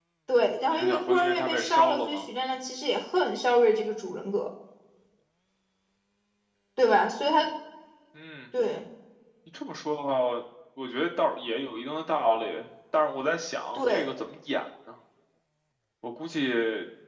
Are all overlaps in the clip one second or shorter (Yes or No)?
No